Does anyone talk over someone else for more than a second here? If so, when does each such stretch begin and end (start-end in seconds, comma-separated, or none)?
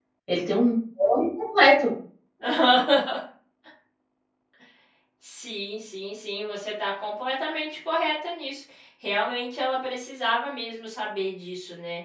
none